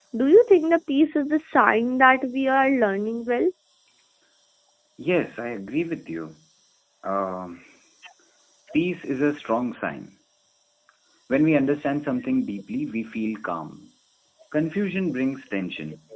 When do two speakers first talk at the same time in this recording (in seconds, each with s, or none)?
none